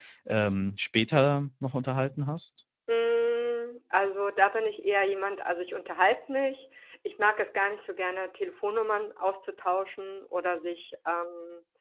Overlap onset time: none

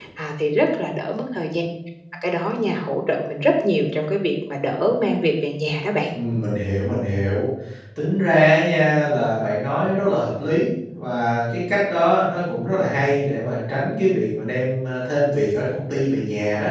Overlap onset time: none

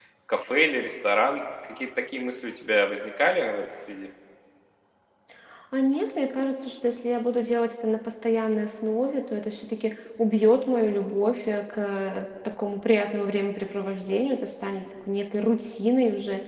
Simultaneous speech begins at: none

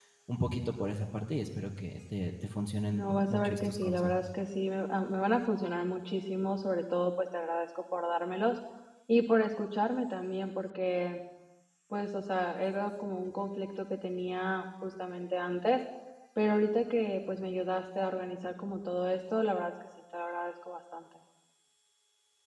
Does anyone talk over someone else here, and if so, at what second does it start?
2.9 s

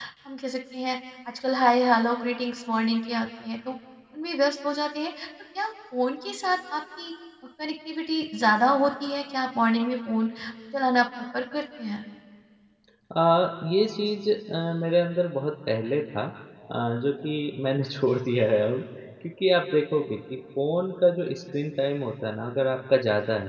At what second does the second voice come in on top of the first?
none

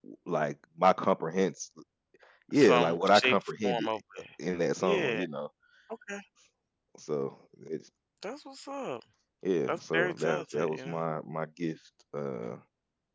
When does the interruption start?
2.5 s

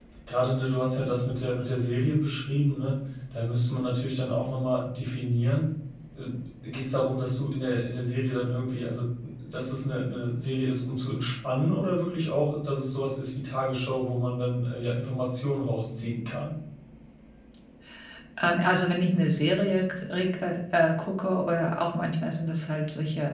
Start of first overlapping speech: none

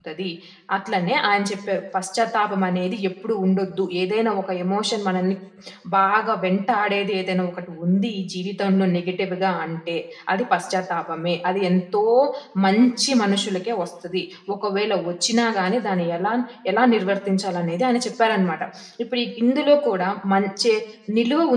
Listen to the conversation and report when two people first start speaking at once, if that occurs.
none

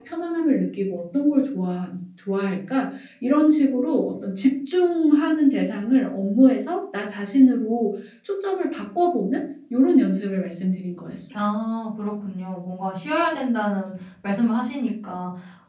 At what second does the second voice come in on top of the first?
none

